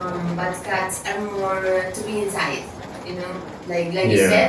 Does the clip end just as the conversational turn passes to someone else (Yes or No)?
No